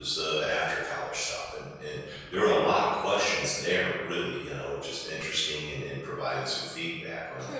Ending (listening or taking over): taking over